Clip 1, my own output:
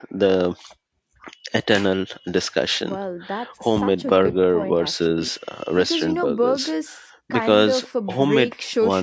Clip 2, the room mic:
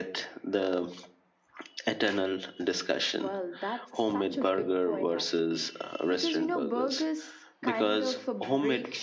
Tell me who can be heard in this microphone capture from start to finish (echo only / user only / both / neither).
echo only